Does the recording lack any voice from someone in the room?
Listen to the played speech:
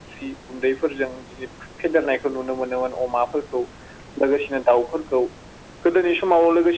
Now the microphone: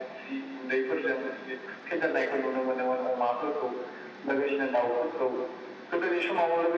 Yes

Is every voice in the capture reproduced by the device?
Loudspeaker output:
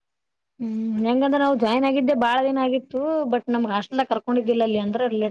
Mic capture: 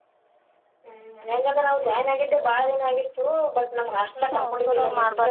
No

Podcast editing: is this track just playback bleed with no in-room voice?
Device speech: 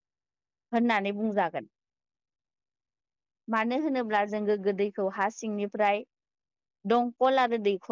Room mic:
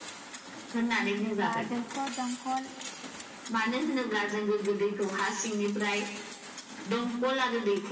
No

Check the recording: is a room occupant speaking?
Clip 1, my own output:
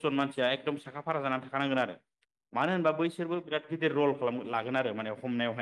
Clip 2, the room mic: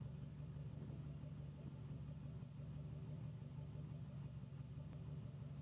No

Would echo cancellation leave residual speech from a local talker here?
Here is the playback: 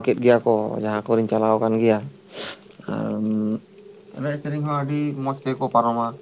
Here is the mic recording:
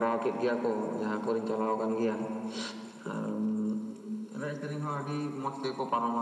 No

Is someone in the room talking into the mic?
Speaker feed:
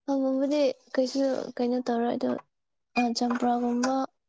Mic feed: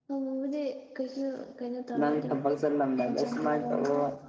Yes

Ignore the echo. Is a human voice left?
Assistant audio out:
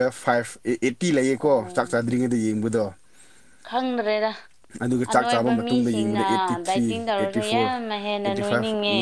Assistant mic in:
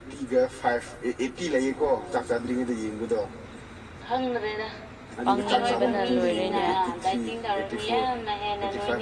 Yes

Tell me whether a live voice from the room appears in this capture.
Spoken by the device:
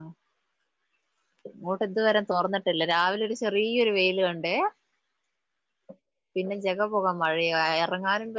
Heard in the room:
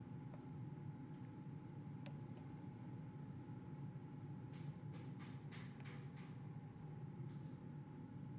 No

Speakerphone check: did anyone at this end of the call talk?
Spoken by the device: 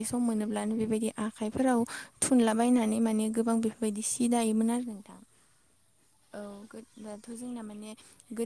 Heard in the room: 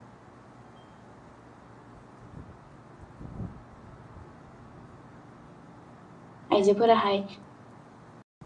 Yes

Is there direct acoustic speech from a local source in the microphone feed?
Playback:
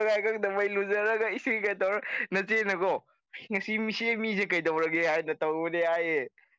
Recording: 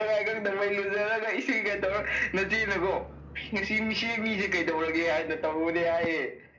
No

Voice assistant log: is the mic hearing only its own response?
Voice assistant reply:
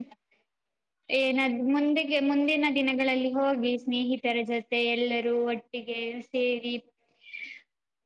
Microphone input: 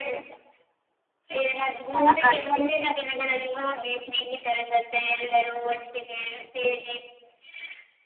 No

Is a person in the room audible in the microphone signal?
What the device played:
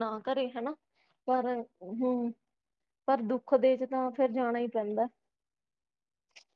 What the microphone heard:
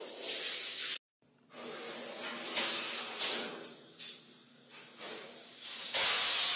No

